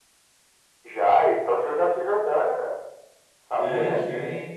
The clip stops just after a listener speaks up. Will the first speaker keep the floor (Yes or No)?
No